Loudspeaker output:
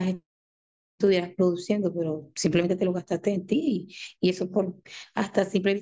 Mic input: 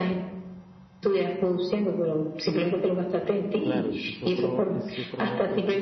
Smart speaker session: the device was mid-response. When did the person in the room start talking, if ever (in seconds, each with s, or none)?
3.6 s